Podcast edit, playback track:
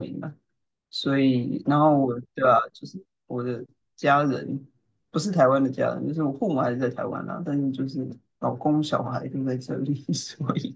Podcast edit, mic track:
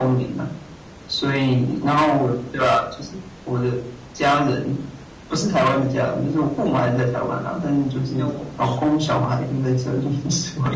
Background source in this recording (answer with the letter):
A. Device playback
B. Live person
B